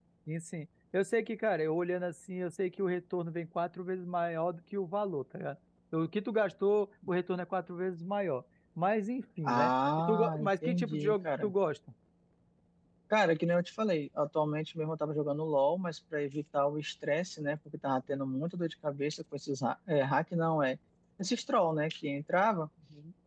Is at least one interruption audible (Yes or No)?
Yes